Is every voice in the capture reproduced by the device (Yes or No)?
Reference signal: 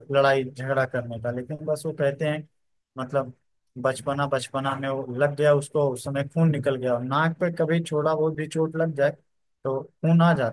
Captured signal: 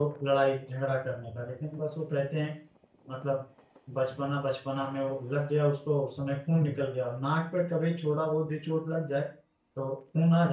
Yes